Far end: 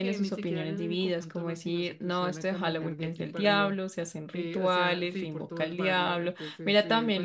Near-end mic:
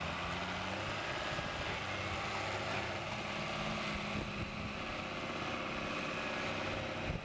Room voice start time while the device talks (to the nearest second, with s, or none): none